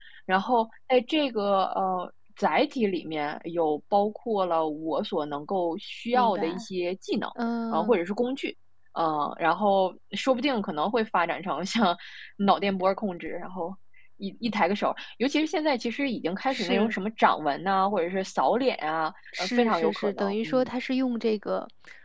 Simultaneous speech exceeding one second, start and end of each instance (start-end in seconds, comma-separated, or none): 19.4-20.7